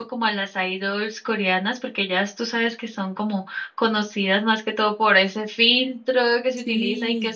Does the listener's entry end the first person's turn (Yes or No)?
No